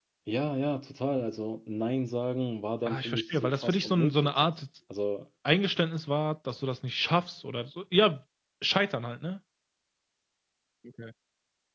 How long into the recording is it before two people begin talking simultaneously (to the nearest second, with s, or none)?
3 s